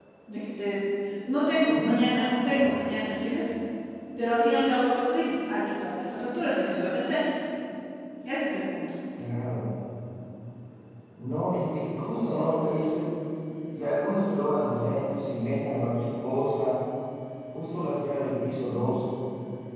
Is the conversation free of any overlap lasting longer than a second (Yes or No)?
Yes